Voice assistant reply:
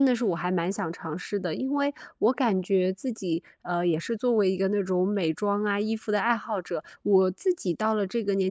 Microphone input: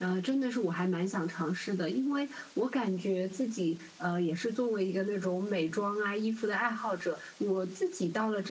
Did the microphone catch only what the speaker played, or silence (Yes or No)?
Yes